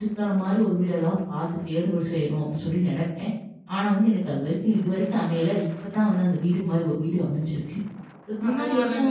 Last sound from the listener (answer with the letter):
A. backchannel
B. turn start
B